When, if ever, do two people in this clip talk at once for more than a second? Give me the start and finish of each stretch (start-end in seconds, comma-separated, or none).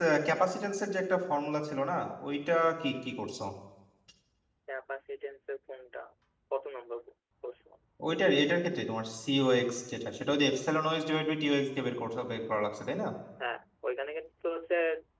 none